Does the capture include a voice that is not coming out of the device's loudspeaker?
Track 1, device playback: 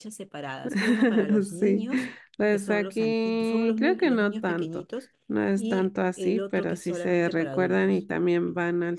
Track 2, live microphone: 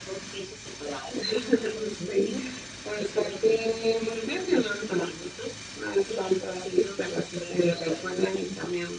No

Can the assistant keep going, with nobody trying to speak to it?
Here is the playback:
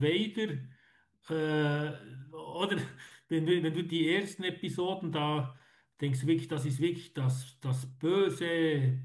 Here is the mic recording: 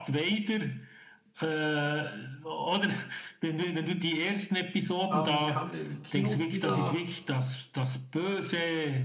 No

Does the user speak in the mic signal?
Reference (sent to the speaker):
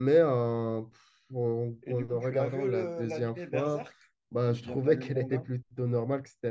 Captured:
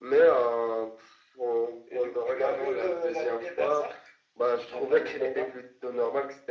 No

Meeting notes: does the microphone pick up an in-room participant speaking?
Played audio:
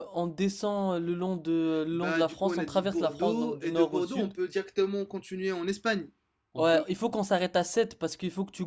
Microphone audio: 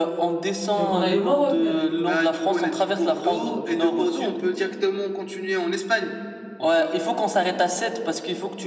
Yes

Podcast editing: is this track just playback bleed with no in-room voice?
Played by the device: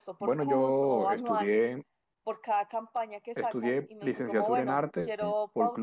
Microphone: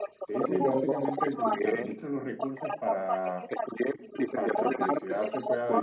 No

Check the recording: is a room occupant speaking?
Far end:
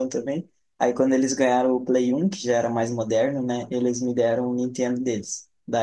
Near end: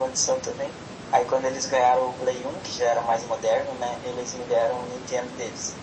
No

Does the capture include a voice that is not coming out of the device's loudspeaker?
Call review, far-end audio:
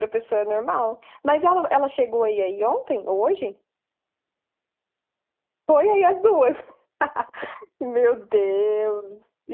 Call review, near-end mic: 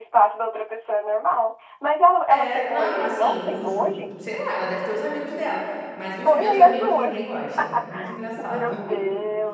Yes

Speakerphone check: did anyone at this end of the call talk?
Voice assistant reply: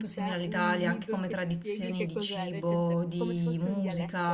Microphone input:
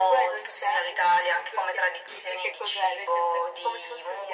No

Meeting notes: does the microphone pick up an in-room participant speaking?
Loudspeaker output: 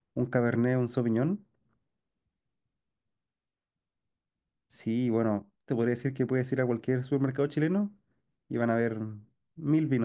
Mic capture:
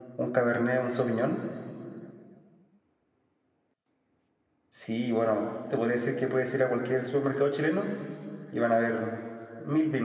No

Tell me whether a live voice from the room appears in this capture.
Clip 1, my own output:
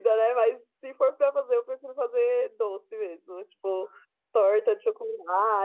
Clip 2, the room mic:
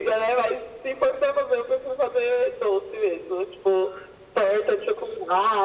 No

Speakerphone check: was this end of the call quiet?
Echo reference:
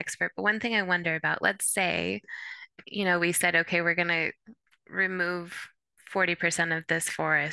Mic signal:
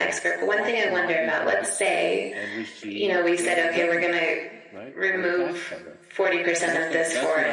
No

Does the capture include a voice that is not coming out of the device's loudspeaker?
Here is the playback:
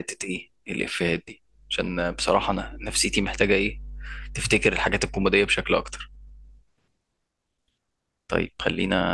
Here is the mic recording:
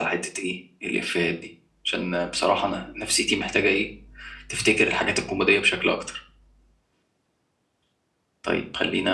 No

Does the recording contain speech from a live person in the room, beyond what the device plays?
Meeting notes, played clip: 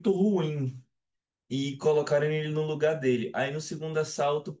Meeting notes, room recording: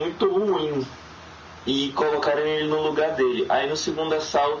No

